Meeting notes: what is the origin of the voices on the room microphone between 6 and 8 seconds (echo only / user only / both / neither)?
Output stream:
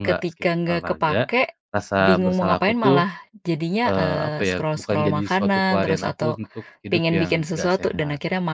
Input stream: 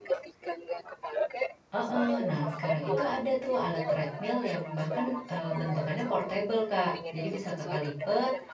both